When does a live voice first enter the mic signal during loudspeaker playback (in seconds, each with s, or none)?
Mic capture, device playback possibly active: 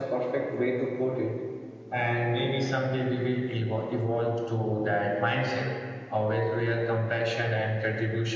none